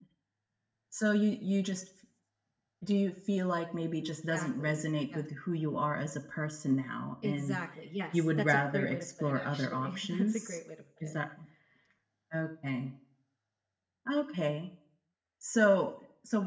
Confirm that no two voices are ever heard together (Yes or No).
No